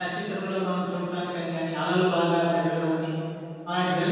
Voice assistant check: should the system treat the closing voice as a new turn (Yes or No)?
Yes